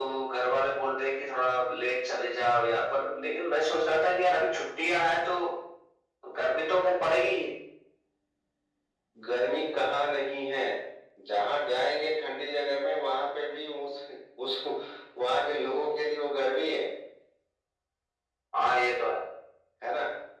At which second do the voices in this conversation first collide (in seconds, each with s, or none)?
none